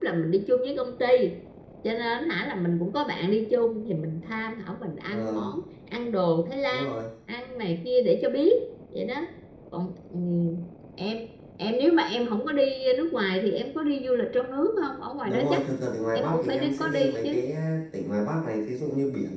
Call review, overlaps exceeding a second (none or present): present